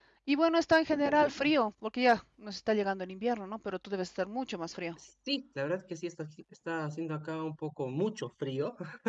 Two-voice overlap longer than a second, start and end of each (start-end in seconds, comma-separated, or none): none